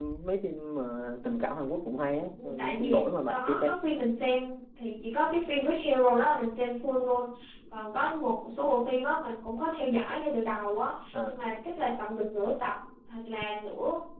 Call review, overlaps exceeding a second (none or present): present